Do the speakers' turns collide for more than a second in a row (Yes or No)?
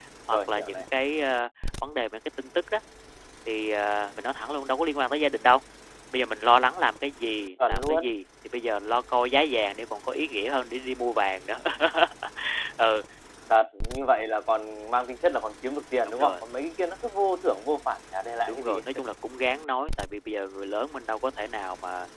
No